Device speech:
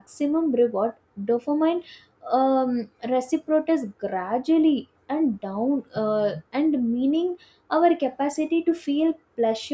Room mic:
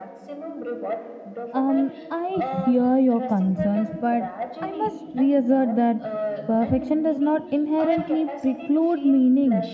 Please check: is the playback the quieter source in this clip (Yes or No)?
Yes